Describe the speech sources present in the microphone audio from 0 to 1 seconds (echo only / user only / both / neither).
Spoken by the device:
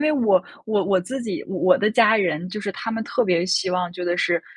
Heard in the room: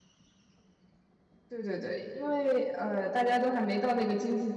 neither